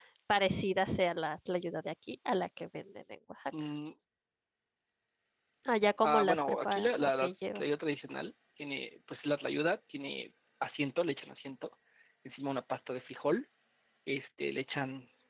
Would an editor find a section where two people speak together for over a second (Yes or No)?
Yes